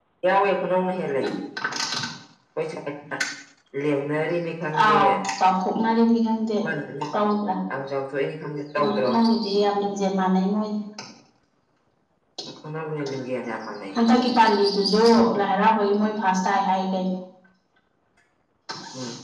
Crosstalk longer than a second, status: none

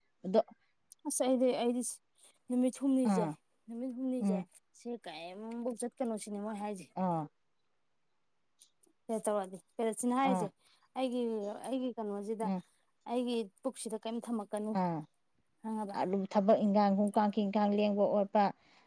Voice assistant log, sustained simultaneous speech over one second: none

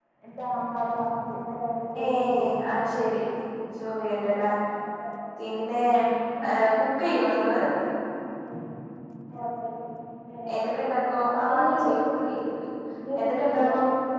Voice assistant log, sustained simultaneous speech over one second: present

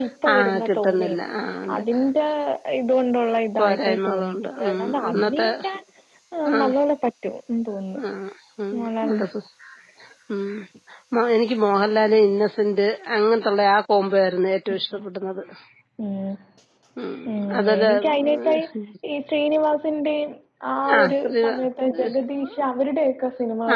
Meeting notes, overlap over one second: present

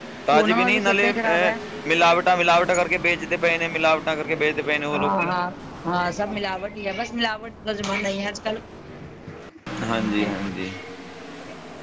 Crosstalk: present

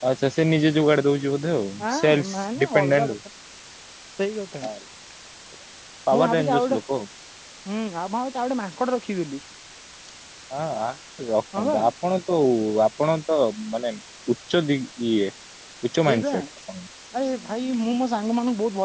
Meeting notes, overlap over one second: present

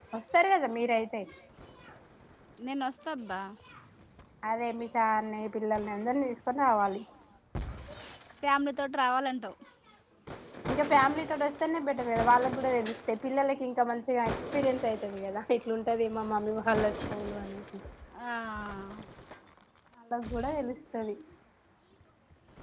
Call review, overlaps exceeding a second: none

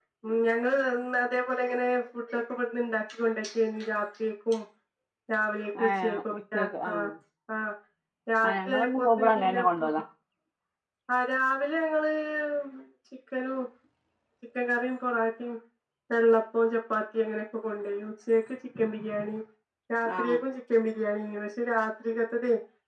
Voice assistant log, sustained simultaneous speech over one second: present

